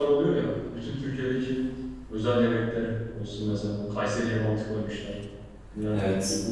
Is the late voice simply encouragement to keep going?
Yes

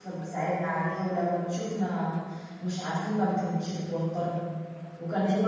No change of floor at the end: Yes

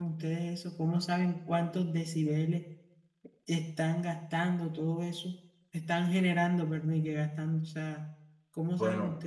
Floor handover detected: Yes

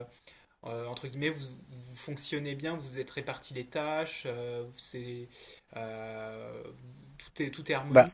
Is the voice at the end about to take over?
No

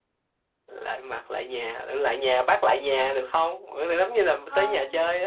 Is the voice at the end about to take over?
Yes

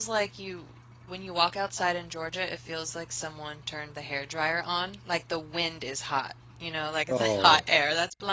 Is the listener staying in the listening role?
Yes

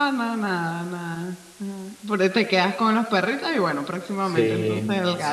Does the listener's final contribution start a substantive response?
Yes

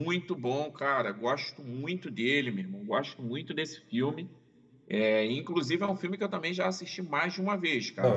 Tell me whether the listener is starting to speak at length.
Yes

